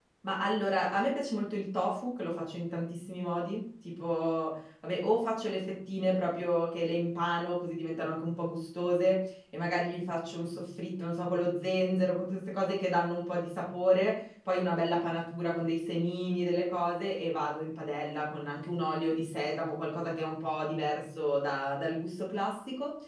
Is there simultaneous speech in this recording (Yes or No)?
No